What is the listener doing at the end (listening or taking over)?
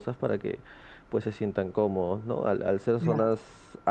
listening